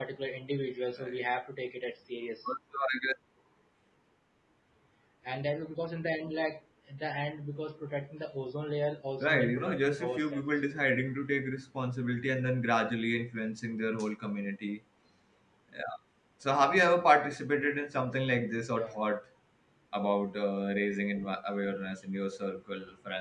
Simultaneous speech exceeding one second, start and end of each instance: 9.2-10.4

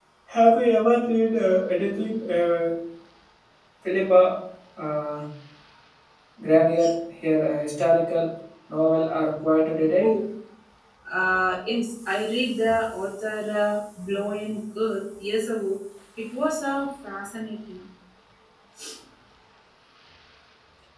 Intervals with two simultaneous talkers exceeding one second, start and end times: none

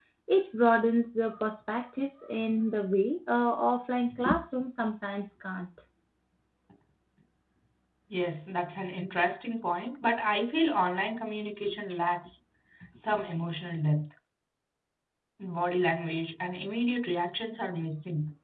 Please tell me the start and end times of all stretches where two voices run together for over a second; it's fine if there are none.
none

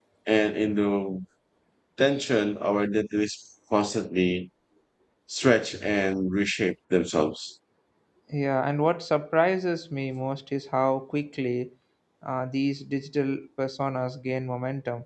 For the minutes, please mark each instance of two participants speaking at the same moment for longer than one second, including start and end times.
none

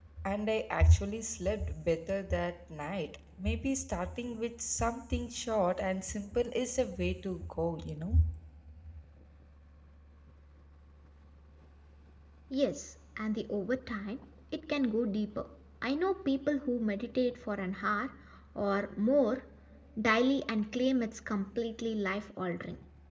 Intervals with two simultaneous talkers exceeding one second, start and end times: none

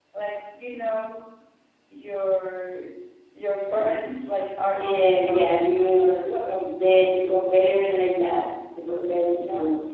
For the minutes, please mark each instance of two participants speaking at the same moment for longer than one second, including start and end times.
4.7-6.5

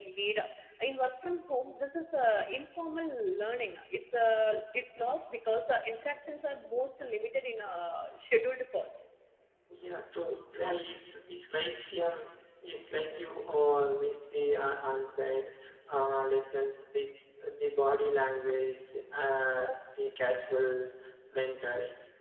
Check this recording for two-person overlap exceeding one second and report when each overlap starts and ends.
none

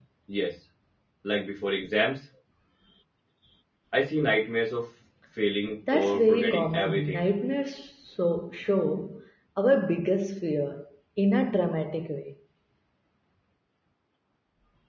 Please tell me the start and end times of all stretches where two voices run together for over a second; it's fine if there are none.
5.9-7.2

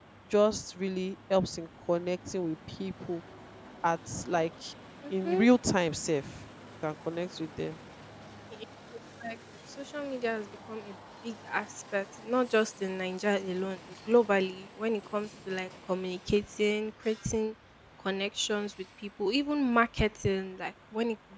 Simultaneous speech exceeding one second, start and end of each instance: none

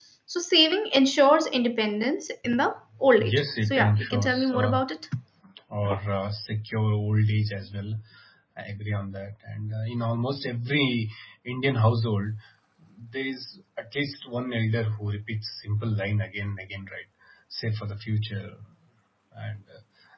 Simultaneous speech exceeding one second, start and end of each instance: 3.2-4.8

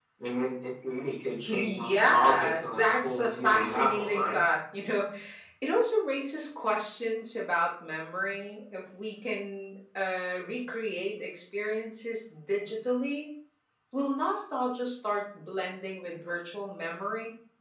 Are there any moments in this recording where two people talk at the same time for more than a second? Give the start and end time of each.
1.4-4.4

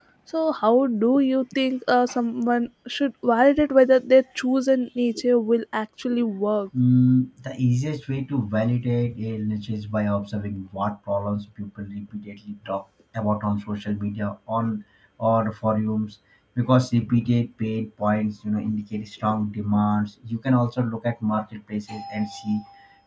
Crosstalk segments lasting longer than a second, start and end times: none

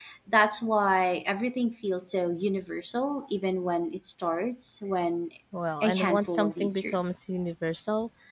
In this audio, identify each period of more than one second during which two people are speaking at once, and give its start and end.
5.8-7.2

